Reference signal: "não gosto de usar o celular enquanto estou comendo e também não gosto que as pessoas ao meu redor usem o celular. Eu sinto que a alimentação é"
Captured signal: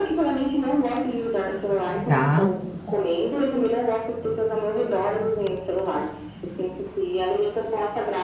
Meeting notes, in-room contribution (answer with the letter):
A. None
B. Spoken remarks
B